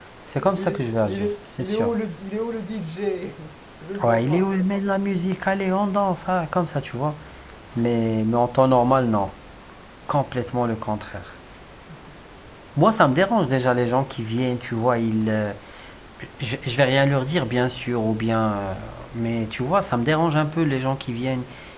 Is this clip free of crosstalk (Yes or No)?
No